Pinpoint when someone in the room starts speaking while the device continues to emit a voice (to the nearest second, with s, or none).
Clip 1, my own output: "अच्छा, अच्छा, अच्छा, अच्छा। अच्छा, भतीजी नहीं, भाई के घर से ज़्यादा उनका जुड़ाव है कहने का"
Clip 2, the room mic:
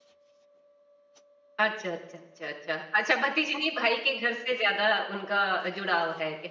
none